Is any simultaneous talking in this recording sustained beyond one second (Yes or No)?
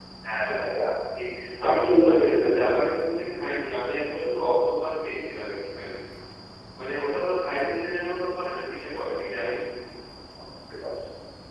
Yes